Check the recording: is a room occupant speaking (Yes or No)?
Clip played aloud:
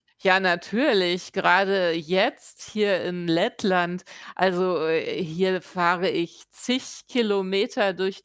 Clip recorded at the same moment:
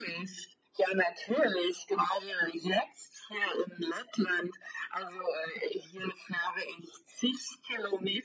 No